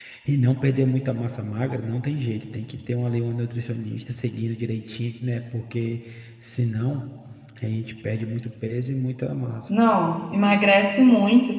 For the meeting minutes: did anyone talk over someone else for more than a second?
No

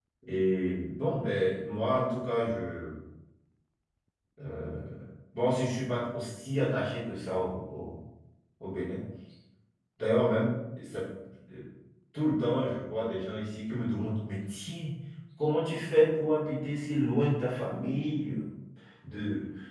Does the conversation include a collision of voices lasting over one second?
No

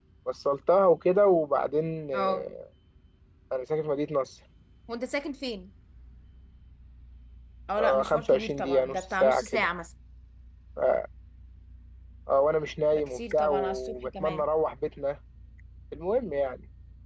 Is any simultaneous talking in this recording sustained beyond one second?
Yes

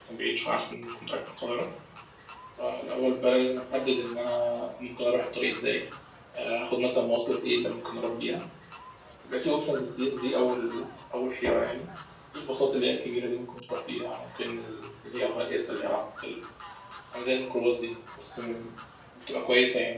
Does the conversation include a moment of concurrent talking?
No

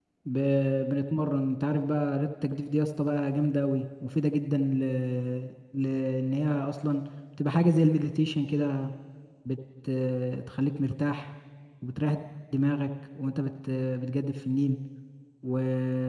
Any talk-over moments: No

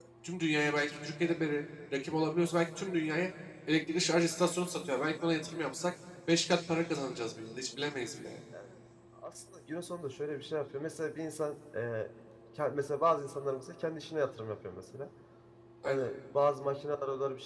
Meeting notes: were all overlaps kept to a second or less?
Yes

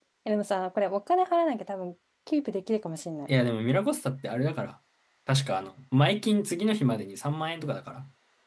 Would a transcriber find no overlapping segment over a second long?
Yes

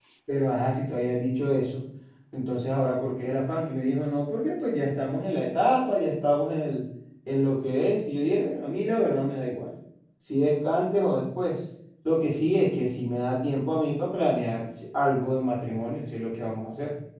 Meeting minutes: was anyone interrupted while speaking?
No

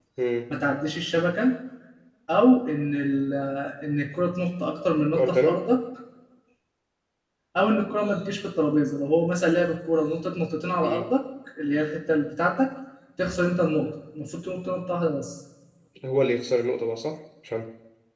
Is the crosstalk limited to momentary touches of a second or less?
Yes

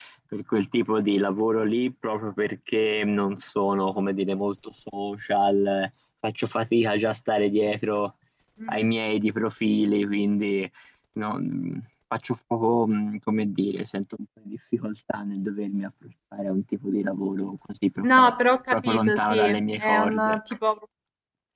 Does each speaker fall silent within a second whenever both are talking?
No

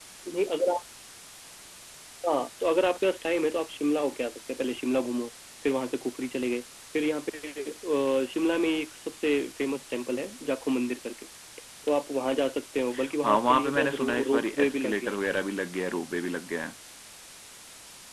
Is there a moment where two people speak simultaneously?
Yes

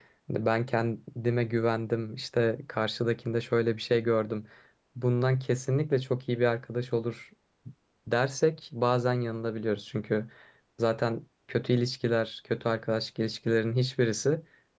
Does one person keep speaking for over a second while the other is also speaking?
No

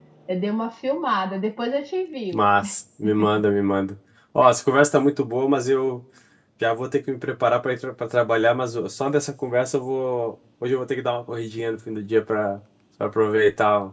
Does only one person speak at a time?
Yes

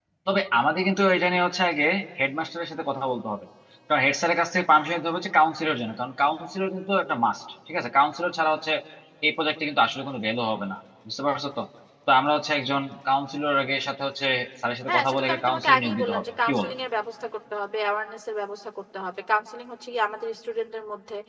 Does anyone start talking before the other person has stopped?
Yes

